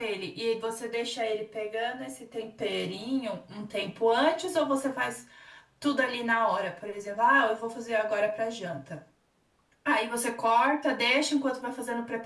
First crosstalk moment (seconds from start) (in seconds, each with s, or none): none